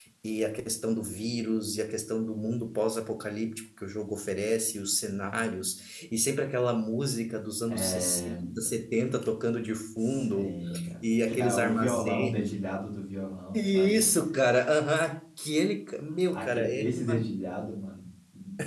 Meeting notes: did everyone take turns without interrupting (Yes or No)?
No